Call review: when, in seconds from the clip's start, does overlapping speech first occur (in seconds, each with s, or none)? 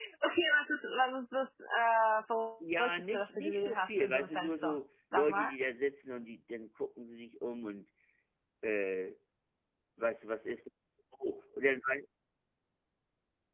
2.6 s